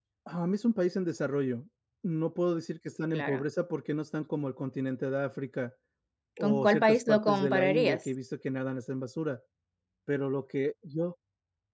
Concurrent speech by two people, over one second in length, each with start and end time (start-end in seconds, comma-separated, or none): 6.4-8.1